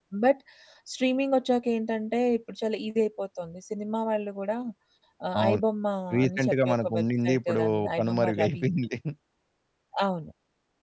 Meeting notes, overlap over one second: present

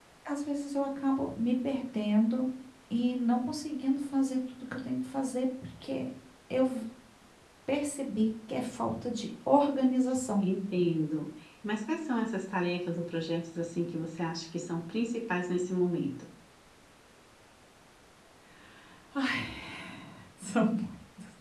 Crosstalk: none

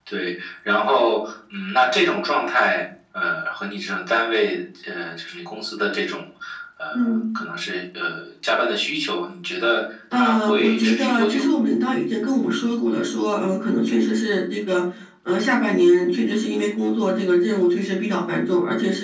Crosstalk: present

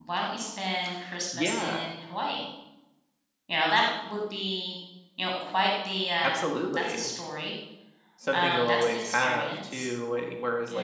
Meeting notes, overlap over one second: present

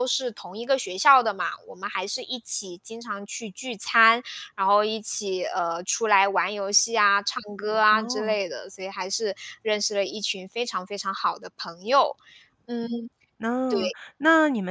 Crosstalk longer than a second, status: none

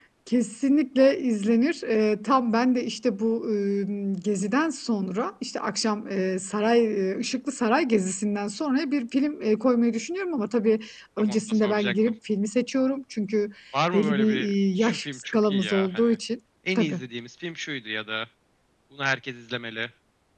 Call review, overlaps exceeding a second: present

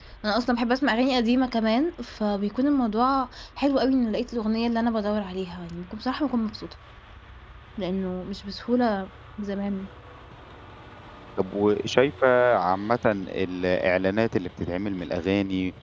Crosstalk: none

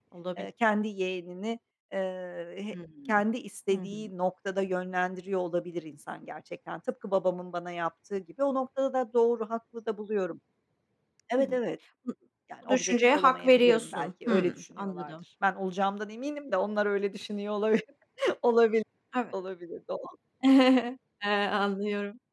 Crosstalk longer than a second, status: present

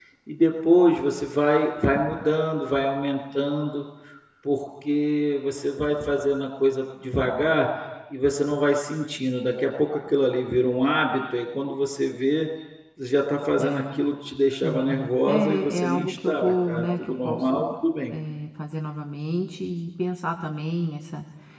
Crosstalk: present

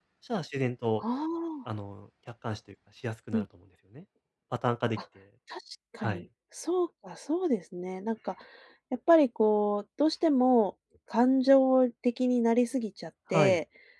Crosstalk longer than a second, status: none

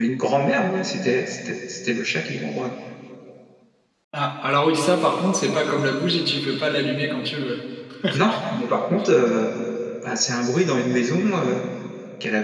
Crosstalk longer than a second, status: none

